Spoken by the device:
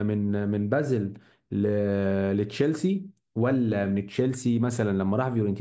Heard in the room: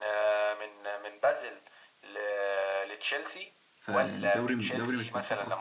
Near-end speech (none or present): present